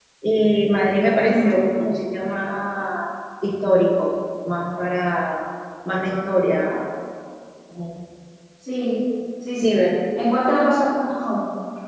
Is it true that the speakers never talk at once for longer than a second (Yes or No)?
Yes